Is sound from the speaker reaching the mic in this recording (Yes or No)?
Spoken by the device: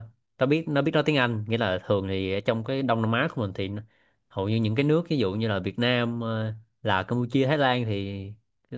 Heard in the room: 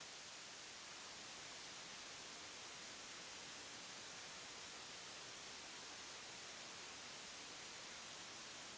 No